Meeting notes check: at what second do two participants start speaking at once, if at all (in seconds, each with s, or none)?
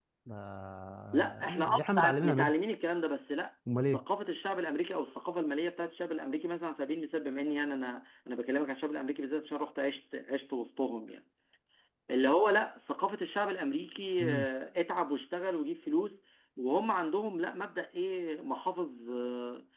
1.1 s